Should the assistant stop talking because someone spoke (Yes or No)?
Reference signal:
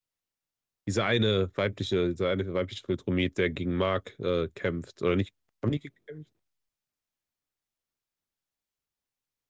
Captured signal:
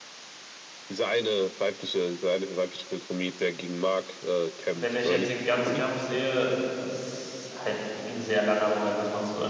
Yes